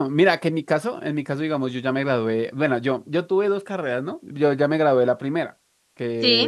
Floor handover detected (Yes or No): No